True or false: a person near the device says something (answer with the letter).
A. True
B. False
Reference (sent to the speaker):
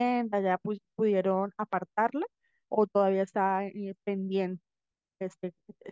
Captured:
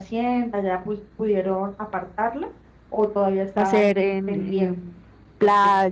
A